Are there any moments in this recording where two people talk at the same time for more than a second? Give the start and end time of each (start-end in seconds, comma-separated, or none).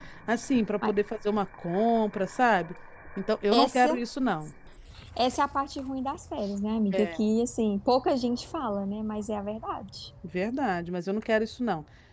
none